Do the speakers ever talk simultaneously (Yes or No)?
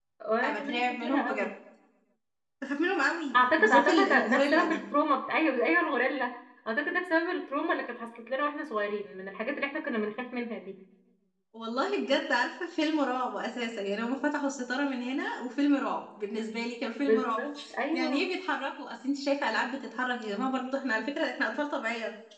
Yes